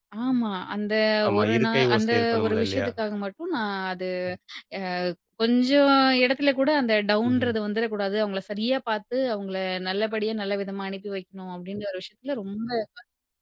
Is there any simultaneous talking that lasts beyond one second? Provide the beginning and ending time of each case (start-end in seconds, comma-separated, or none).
1.4-2.9